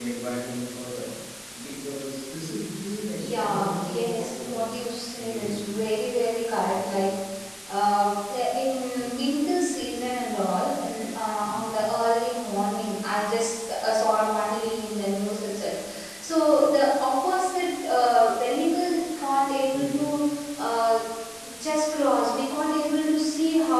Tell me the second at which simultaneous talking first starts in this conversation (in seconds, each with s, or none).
3.2 s